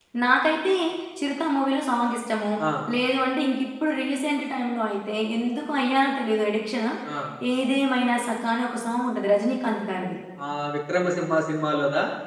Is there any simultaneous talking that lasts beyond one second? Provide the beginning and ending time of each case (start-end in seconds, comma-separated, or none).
none